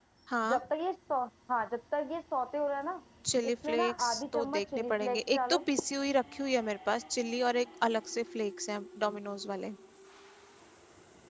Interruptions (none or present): present